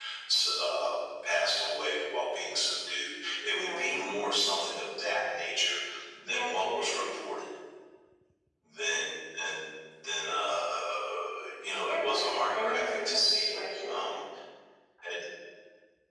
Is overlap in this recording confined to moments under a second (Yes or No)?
No